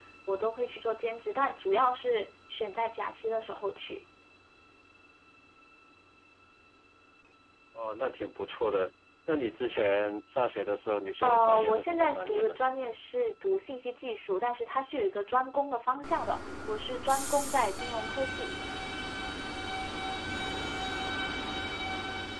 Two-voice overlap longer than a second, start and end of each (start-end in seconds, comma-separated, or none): 11.2-12.5